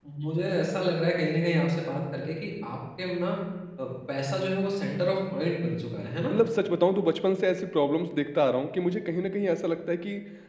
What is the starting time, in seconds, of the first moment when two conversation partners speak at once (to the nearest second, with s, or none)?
none